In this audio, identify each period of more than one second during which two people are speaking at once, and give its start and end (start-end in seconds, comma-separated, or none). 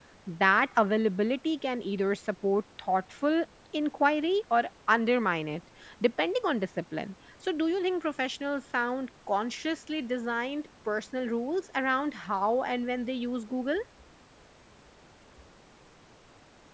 none